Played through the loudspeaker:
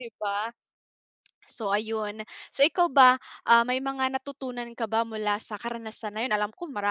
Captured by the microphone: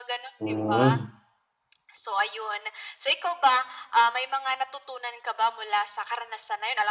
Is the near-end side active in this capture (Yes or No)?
Yes